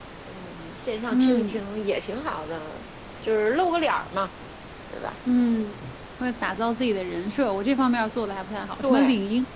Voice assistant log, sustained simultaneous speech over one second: none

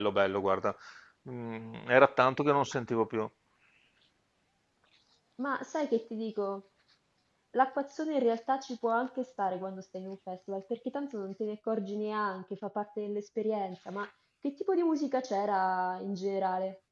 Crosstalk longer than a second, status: none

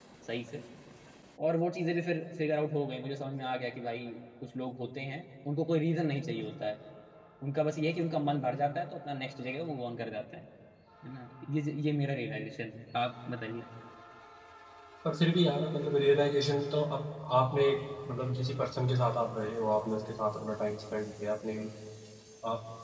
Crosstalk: none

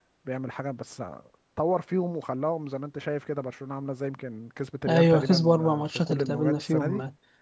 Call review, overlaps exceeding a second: present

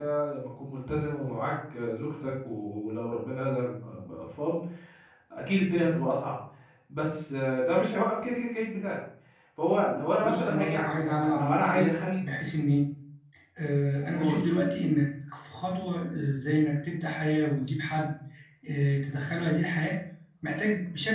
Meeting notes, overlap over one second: present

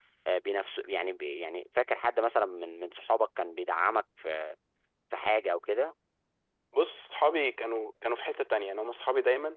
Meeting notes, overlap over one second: none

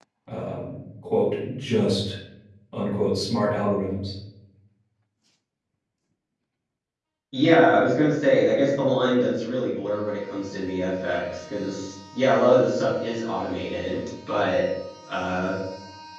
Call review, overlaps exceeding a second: none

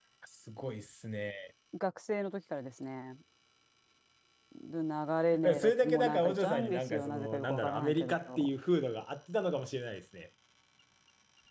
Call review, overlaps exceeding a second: present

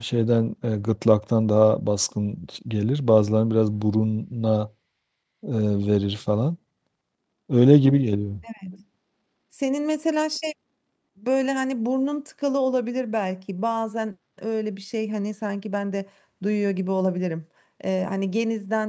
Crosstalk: none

